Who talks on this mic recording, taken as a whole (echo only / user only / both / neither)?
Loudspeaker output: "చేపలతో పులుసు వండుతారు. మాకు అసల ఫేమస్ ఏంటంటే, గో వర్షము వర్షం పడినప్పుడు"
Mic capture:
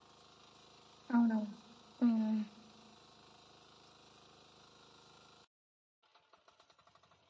user only